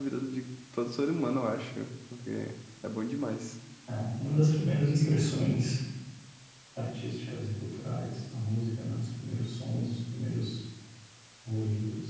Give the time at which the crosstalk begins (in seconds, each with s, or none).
none